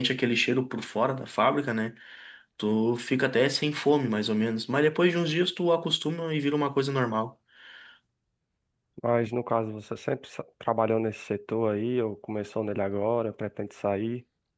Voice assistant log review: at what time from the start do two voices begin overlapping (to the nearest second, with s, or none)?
none